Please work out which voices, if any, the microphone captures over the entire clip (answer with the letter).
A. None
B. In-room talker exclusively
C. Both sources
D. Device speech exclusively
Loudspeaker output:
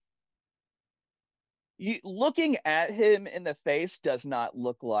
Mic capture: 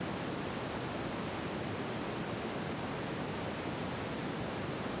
A